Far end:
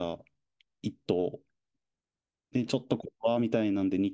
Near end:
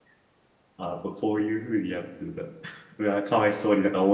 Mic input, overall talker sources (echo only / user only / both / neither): user only